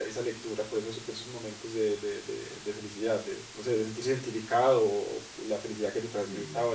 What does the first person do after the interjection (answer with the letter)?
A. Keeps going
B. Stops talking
A